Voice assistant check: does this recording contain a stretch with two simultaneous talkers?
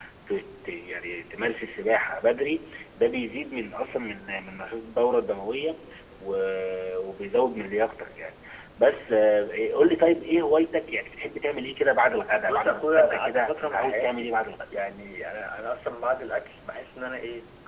Yes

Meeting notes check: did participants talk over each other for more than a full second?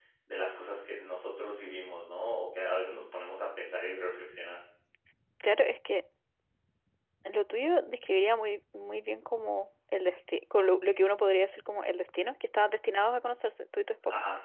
No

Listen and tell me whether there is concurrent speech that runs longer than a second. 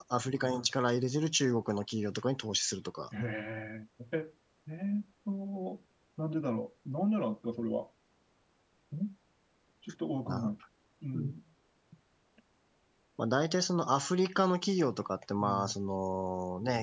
No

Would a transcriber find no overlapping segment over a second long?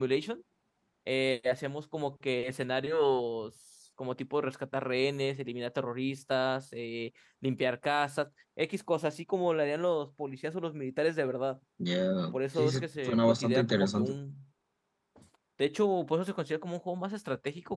No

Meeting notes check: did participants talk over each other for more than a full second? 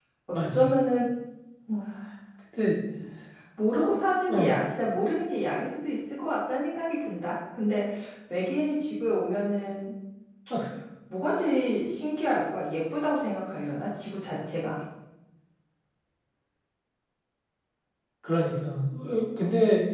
No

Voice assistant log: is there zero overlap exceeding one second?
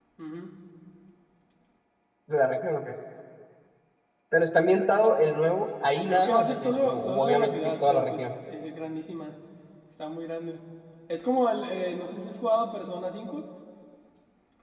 No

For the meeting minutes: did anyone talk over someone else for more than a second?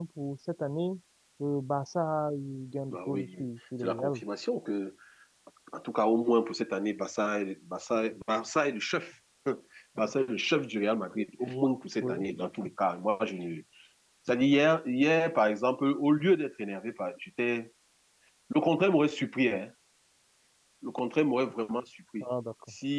No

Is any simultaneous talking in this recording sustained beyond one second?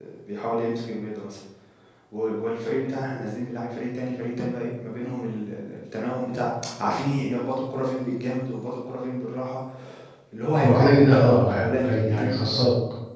Yes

